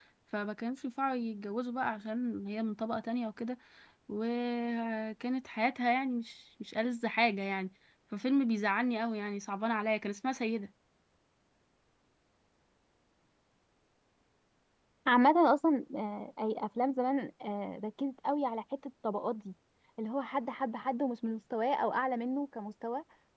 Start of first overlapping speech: none

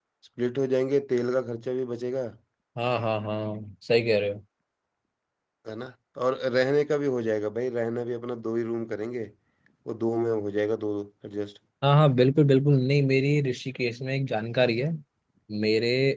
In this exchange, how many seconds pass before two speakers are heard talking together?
none

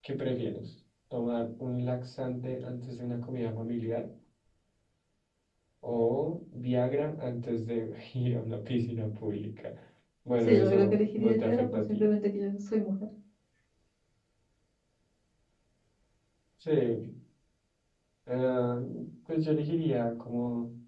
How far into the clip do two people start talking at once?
10.5 s

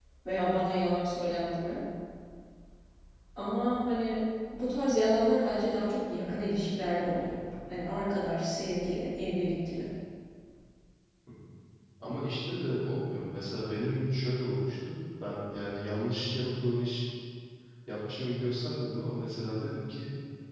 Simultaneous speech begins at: none

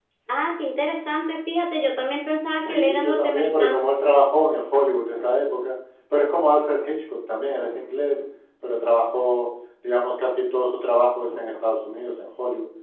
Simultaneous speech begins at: 2.6 s

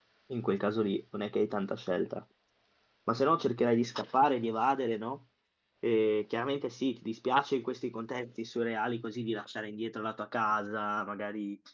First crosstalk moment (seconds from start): none

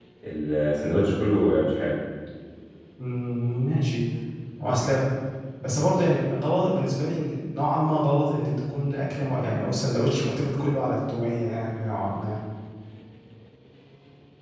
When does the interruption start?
none

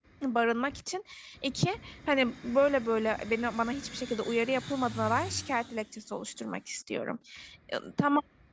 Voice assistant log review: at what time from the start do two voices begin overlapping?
none

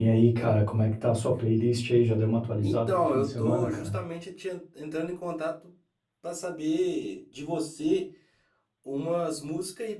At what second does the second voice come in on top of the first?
2.6 s

